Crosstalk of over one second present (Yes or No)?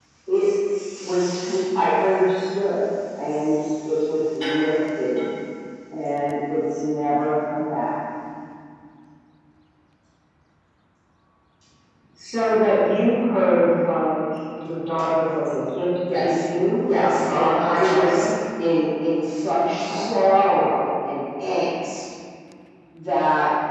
Yes